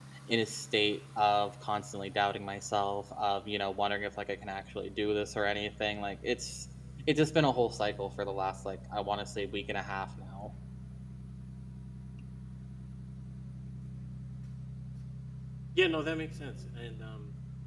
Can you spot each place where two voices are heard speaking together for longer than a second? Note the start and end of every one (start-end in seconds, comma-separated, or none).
none